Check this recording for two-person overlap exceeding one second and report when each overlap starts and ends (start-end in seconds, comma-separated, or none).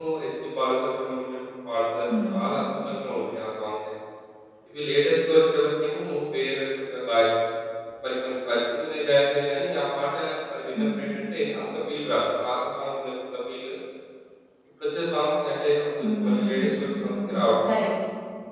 16.2-17.5